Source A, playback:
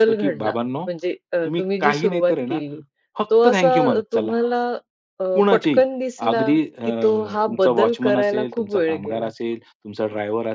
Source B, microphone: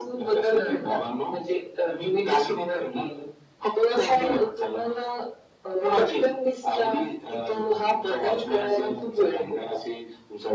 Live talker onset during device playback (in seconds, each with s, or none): 0.6 s